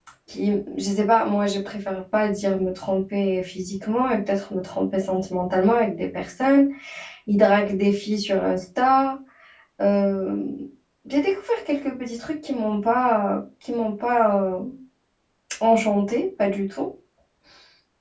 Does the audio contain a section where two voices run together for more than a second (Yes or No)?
No